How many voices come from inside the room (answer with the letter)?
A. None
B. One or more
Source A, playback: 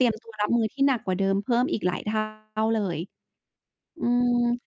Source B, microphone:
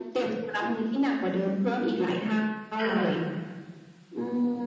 B